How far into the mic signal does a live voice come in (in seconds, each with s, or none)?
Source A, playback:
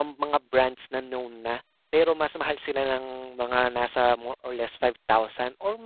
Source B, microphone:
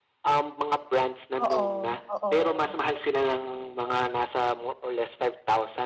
1.4 s